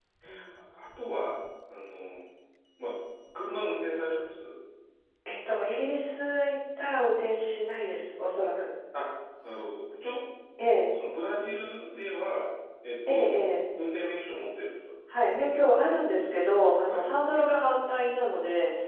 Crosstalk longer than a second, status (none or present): none